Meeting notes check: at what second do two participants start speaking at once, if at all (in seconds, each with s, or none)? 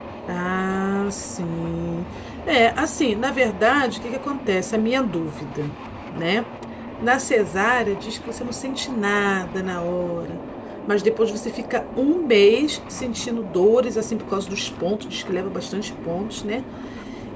none